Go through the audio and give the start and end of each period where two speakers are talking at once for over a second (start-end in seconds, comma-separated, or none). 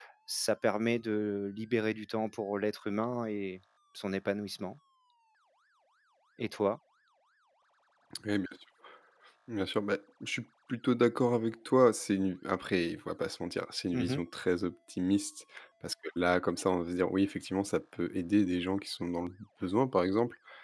none